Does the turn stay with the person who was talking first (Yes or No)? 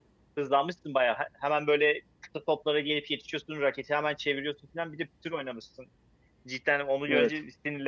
Yes